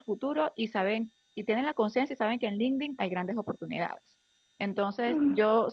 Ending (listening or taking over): listening